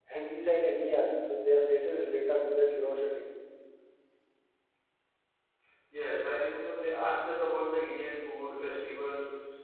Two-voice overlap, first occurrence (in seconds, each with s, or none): none